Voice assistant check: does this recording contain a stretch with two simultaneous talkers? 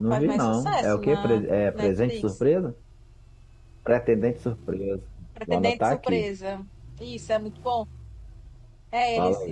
Yes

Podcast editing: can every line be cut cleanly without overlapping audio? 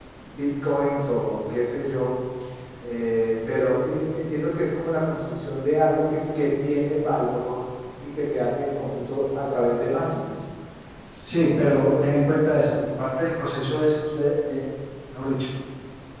Yes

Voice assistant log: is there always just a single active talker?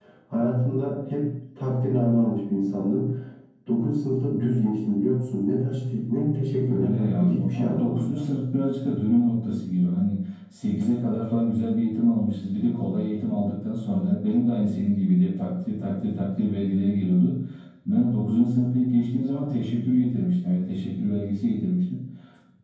No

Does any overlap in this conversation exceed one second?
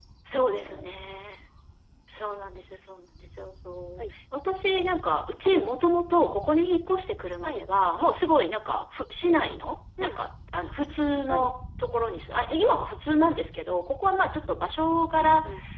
No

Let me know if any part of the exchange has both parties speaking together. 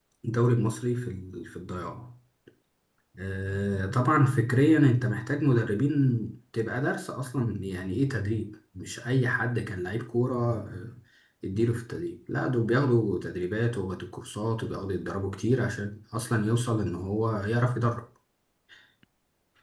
No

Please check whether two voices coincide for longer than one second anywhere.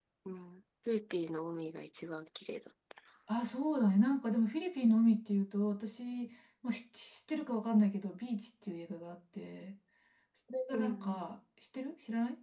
No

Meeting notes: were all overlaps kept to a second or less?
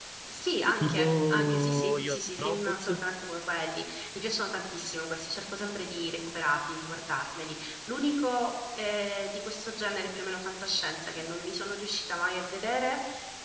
No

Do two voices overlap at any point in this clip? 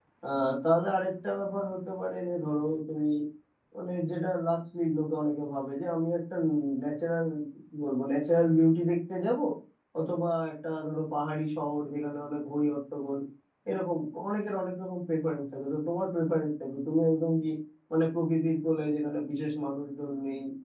No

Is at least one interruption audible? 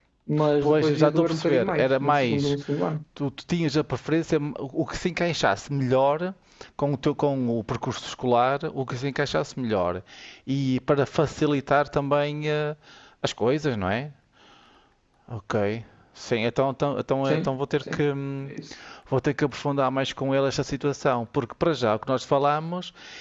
Yes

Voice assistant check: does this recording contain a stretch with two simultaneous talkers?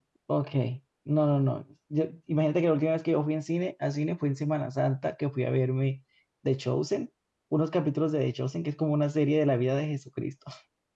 No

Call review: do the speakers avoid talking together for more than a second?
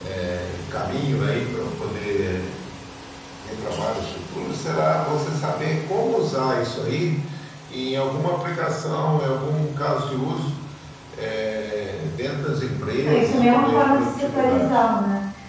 No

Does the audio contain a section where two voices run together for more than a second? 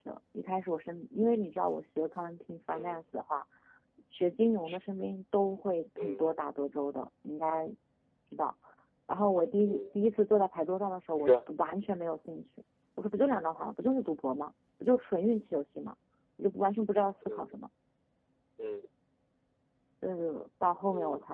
No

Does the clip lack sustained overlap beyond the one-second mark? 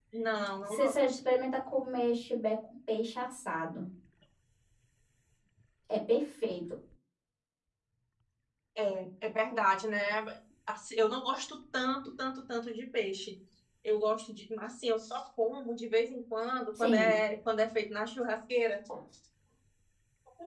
Yes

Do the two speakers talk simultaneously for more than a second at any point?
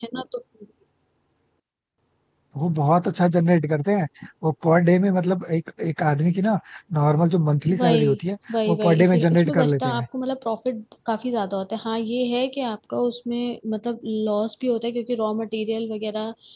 Yes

